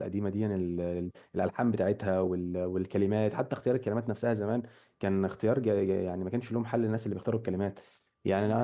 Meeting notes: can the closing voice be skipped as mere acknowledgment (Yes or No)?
Yes